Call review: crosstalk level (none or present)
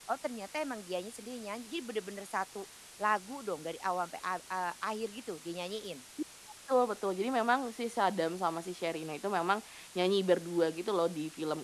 none